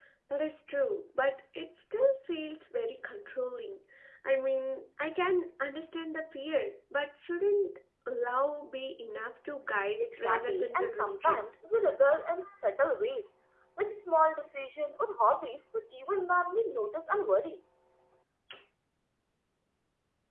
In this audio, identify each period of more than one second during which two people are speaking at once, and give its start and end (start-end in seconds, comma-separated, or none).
10.0-11.4